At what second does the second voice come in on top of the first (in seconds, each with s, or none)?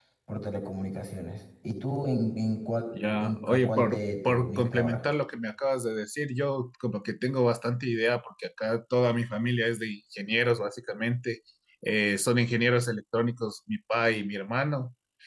2.9 s